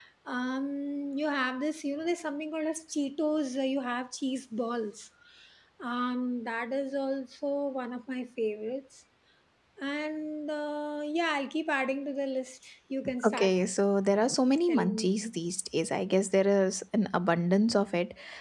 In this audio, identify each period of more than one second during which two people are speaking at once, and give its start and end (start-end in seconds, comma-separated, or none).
none